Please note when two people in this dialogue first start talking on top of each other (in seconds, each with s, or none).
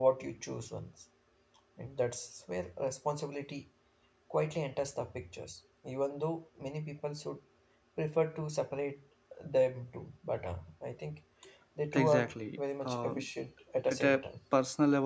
11.9 s